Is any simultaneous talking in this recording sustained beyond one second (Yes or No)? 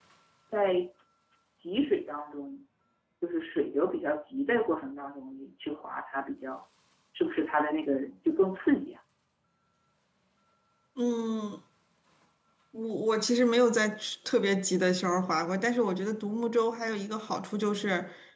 No